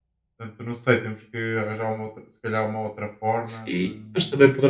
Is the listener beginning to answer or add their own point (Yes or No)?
Yes